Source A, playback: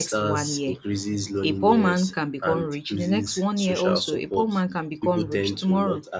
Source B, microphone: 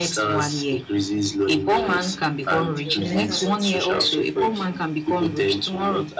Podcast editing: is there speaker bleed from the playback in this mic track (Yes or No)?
Yes